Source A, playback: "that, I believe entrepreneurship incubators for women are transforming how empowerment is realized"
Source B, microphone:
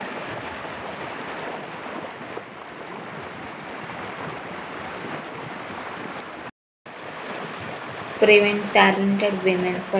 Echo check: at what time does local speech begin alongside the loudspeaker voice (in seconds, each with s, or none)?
8.2 s